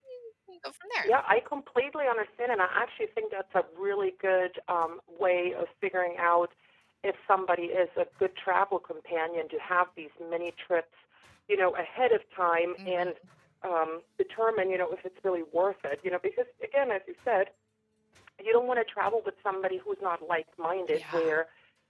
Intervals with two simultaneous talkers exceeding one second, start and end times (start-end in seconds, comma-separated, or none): none